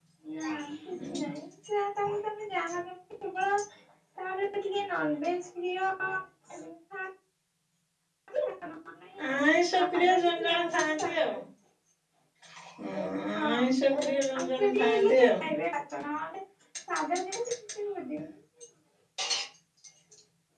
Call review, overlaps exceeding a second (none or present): present